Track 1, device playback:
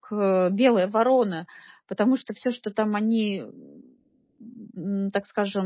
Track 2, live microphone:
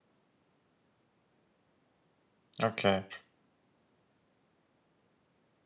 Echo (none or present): none